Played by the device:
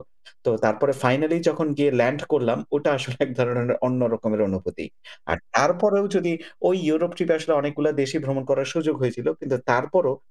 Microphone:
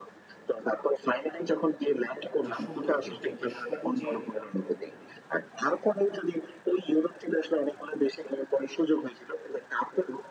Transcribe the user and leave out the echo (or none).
যে সৌন্দর্য যে একটা সবুজের